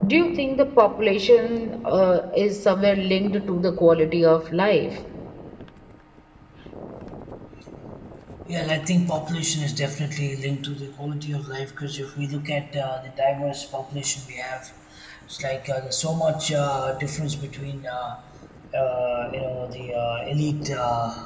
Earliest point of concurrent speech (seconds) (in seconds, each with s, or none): none